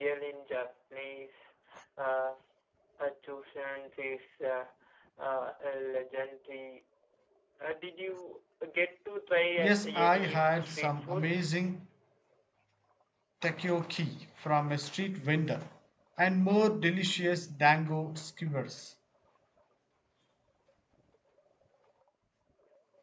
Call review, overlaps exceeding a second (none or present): present